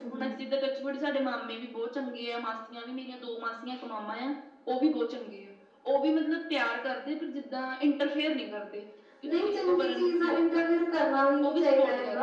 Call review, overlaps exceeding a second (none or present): present